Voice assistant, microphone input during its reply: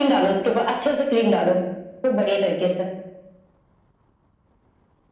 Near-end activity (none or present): none